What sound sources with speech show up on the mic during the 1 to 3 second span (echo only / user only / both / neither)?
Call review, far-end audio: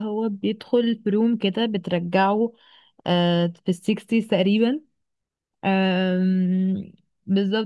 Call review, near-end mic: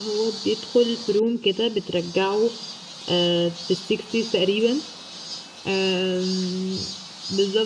echo only